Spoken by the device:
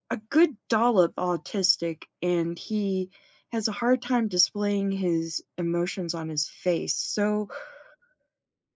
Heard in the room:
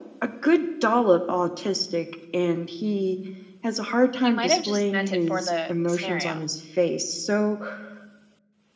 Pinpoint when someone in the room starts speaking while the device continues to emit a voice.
4 s

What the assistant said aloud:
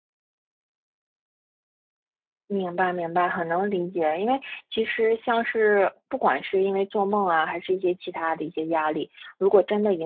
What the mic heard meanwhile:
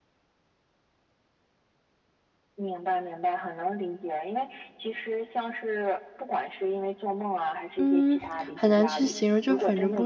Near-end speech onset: 8 s

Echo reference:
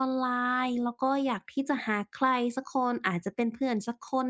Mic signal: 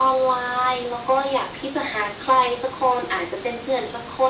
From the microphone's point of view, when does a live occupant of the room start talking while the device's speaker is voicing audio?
none

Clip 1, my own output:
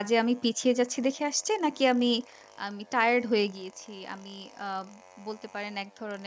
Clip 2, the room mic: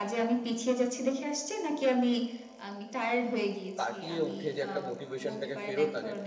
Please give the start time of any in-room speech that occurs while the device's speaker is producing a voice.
4 s

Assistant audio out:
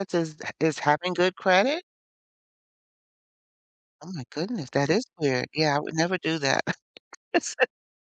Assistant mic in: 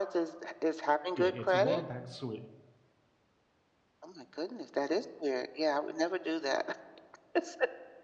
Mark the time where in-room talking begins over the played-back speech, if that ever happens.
1 s

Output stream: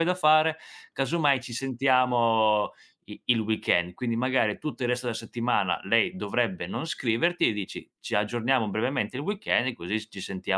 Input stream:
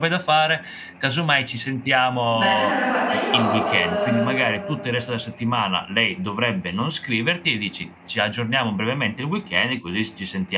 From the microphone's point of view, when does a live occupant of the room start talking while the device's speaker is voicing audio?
2 s

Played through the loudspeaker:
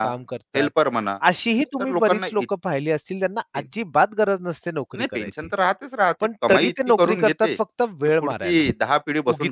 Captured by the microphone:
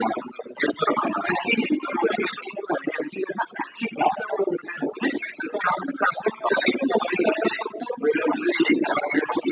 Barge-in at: none

